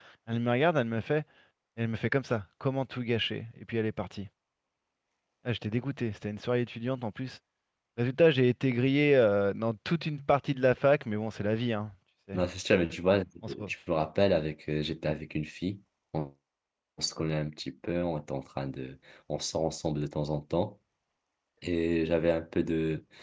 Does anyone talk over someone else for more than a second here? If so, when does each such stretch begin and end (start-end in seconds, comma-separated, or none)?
none